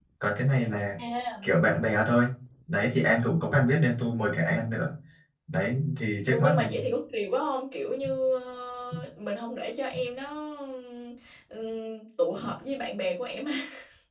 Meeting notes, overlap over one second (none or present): none